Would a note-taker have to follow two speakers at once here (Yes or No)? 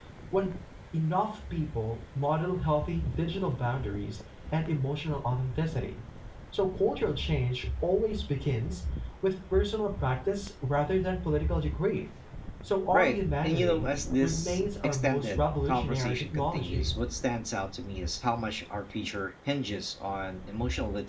Yes